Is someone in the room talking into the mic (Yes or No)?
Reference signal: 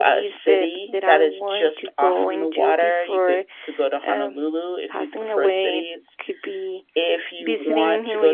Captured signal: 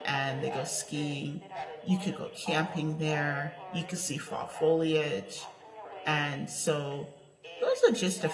Yes